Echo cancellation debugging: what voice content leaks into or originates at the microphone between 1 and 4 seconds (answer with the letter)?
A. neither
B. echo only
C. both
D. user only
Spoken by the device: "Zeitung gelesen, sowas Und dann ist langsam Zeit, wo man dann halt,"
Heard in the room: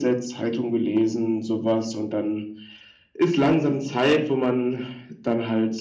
B